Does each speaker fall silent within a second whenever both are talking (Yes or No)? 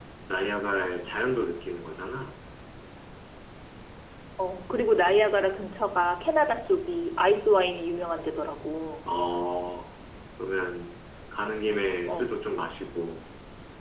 Yes